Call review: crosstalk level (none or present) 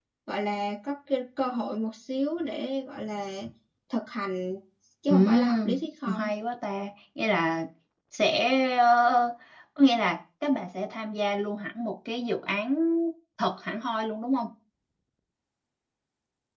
present